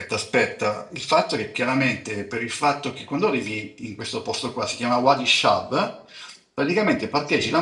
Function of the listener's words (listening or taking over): listening